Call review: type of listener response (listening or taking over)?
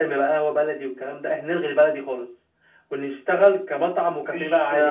taking over